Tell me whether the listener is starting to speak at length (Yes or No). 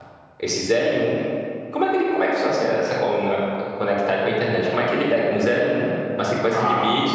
No